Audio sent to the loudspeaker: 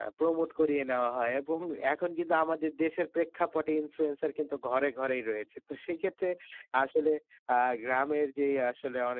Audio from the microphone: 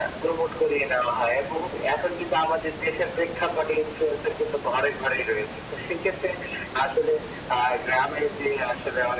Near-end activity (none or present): none